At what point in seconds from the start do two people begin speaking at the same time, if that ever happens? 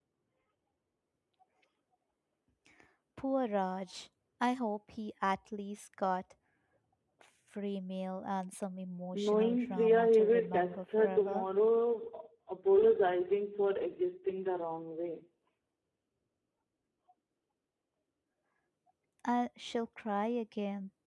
9.1 s

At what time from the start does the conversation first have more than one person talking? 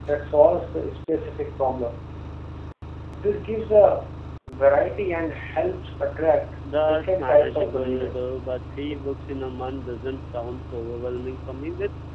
6.6 s

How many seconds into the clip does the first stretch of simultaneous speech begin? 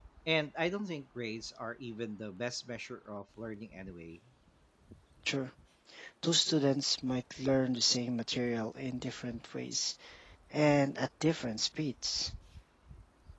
none

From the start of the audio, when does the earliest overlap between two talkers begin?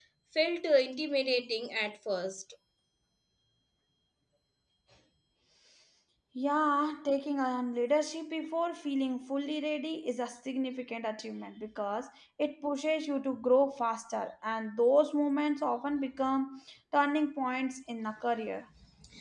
none

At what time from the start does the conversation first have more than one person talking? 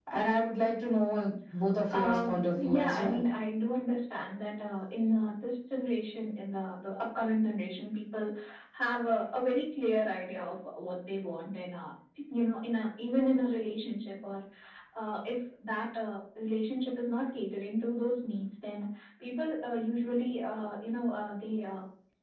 1.9 s

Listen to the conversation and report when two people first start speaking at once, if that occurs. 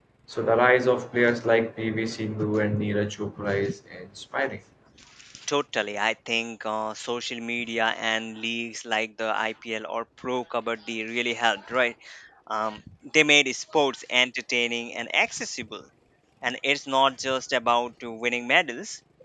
none

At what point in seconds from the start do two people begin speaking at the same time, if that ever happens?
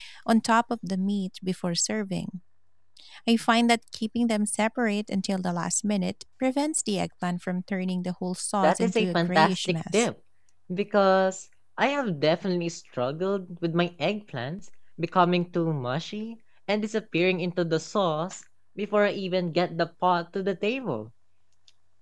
8.6 s

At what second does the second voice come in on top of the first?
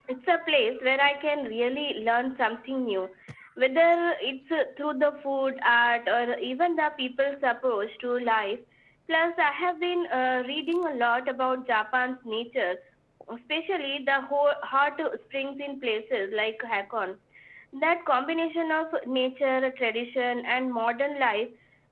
none

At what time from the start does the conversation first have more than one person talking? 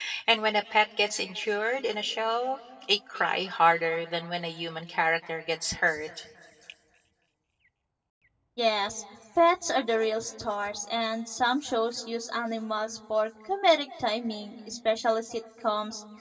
none

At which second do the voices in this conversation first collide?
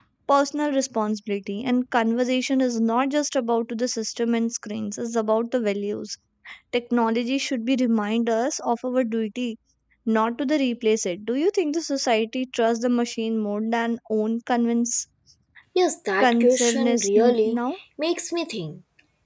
16.2 s

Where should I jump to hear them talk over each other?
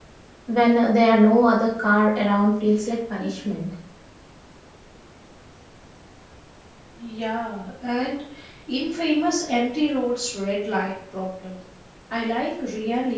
none

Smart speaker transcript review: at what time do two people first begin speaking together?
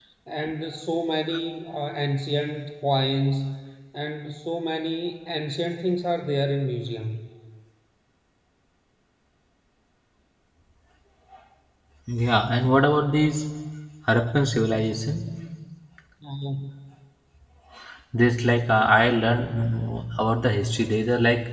none

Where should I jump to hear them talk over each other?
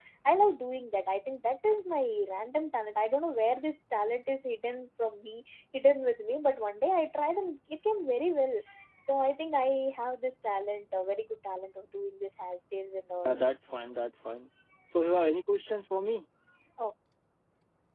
none

